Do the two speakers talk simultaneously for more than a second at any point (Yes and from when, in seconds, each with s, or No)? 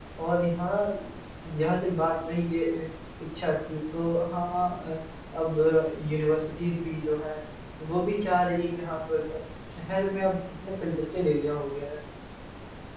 No